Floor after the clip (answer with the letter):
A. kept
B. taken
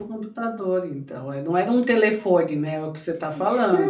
B